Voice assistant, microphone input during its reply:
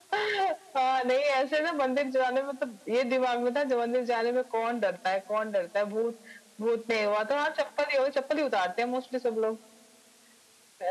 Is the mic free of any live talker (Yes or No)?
Yes